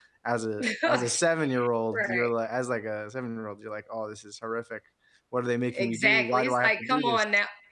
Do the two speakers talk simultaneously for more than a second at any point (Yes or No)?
Yes